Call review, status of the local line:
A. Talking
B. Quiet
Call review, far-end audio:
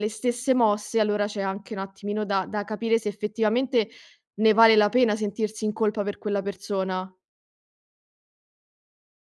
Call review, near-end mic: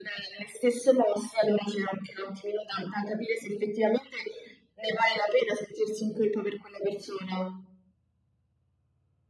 B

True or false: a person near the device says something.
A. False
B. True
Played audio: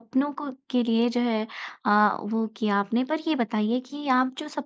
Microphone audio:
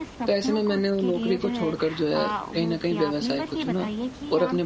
B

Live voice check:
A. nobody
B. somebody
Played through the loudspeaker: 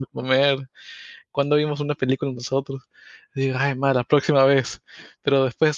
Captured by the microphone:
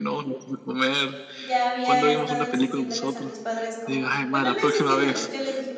B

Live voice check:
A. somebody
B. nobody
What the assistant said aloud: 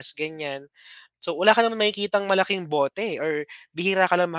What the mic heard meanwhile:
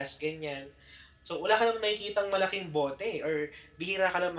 B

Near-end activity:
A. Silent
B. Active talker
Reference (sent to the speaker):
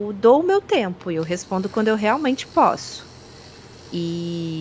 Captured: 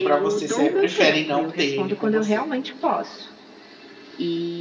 B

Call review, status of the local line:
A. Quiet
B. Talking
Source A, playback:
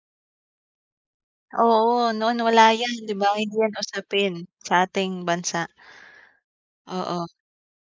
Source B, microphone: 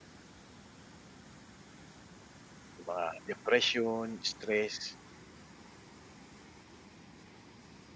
B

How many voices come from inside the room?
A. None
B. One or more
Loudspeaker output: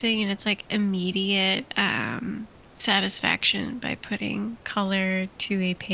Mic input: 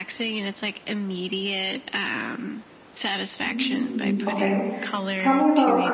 B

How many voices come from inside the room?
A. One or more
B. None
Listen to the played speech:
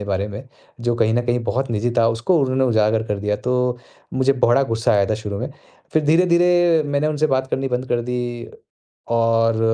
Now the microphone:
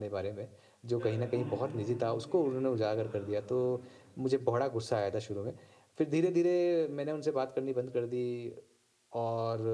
A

